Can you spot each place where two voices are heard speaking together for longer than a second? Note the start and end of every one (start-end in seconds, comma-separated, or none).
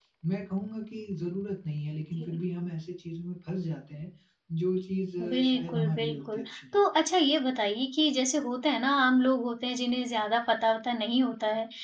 5.2-6.8